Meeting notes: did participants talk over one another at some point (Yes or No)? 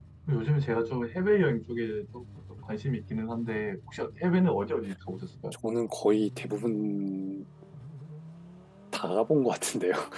No